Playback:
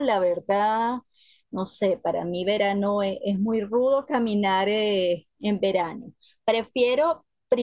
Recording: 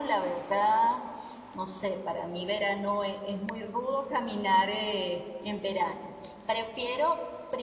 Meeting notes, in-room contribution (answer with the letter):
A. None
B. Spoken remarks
A